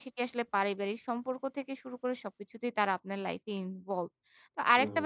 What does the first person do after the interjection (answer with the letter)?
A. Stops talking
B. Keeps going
B